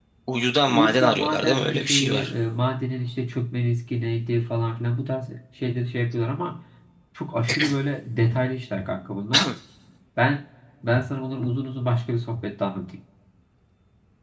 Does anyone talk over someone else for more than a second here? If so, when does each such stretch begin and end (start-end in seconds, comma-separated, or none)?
0.7-2.3